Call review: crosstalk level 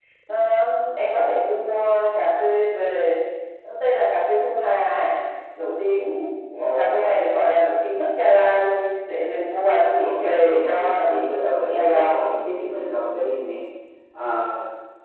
present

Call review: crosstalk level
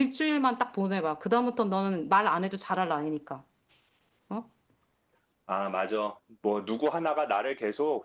none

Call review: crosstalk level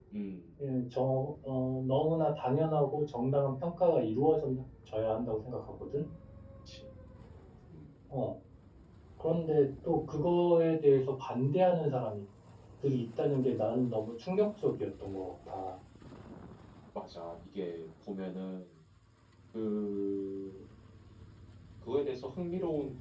none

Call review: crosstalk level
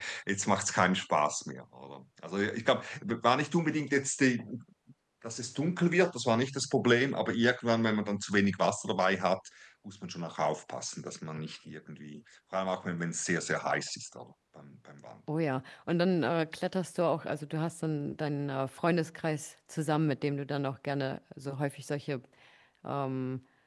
none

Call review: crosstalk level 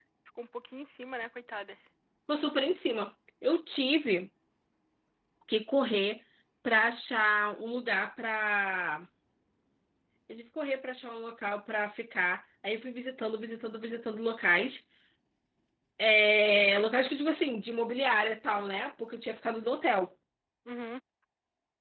none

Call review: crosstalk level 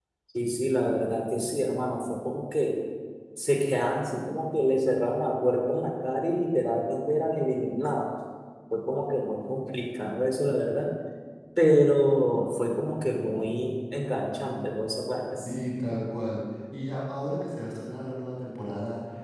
none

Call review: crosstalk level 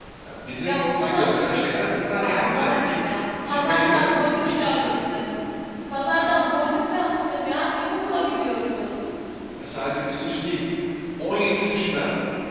present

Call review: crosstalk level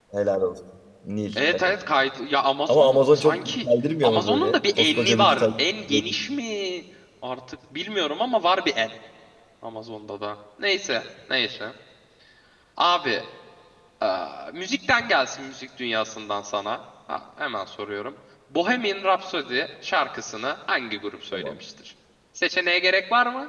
present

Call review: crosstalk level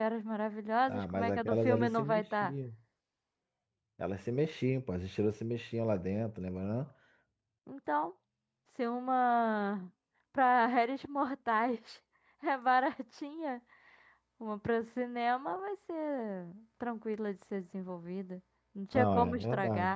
present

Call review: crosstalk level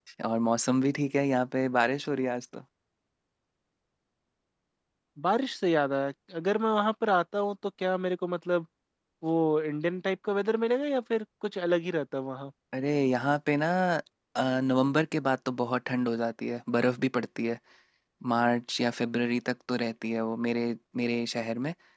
none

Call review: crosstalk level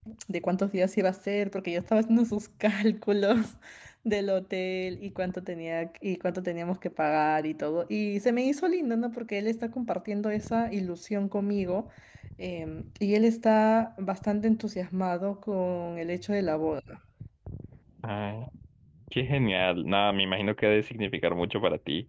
none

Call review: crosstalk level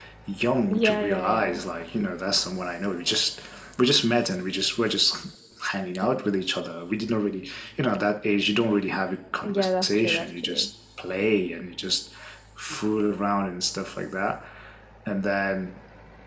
present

